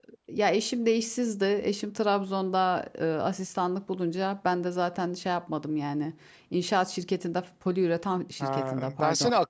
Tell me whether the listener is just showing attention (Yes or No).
No